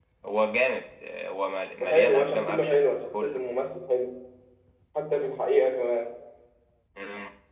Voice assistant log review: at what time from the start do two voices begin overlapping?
1.8 s

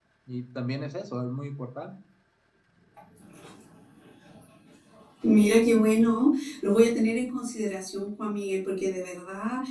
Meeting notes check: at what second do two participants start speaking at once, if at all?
none

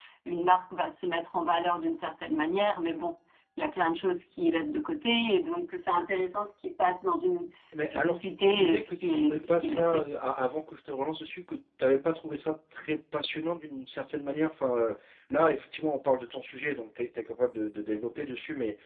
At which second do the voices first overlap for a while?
7.9 s

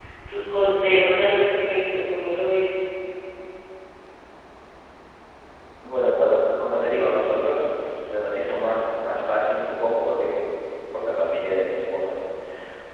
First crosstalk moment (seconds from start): none

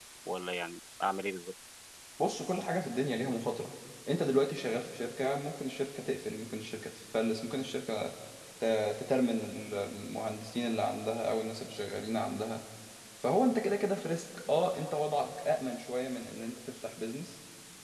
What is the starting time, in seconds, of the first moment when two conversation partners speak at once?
none

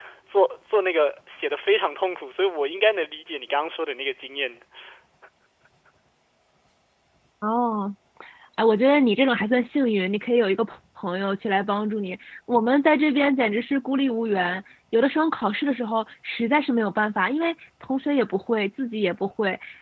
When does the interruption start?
none

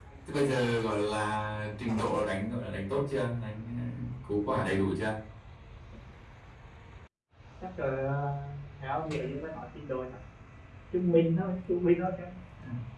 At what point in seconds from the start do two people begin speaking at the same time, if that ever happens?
none

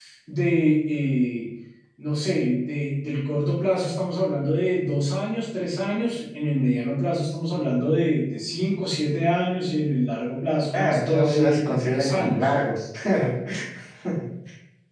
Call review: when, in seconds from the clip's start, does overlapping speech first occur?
10.7 s

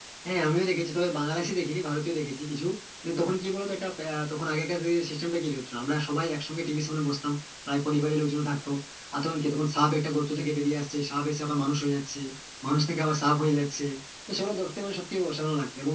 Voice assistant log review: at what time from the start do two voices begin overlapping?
none

